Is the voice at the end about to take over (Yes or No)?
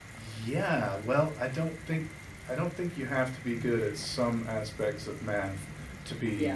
No